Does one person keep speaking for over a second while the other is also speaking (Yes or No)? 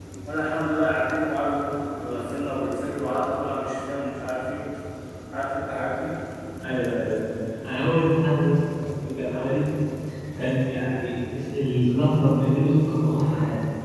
No